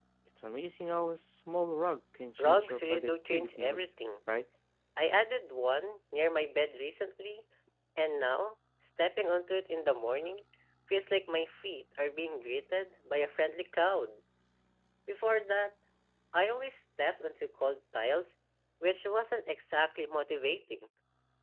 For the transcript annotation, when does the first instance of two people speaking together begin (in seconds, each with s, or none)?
2.4 s